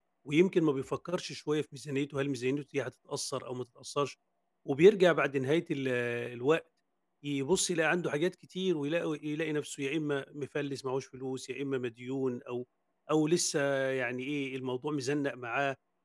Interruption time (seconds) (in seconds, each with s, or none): none